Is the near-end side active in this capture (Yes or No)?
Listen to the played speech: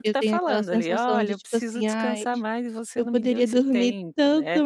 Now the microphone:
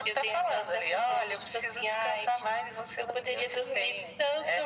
No